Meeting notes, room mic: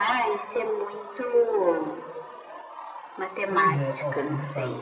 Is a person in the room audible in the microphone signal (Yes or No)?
Yes